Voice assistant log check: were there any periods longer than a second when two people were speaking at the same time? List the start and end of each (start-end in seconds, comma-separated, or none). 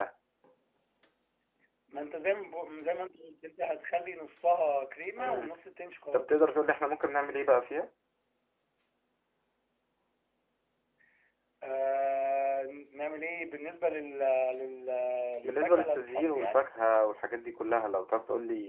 15.4-16.7